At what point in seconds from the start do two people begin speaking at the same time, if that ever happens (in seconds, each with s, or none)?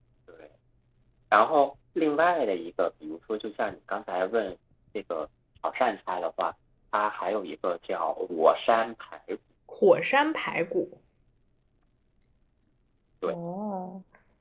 none